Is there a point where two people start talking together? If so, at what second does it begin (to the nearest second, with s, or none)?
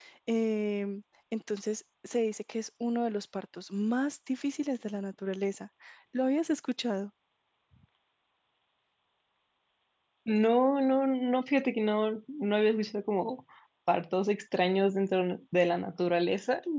none